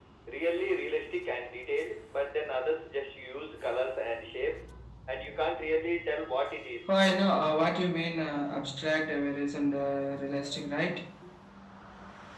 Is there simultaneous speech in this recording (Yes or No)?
No